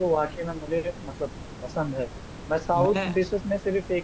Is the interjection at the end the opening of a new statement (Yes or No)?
No